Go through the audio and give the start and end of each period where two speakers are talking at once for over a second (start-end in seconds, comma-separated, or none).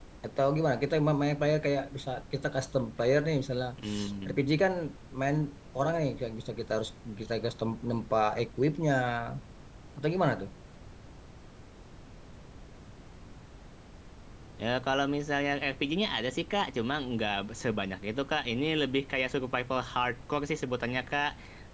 none